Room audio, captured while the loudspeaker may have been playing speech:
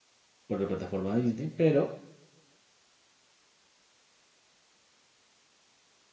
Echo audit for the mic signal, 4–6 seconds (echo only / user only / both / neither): neither